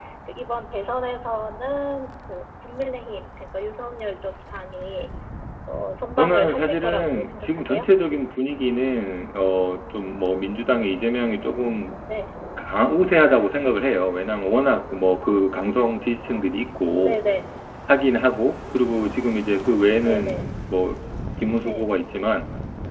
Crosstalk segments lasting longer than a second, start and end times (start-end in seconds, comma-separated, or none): 6.2-7.9